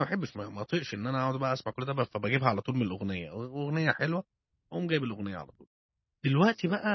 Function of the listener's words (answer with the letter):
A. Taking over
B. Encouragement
B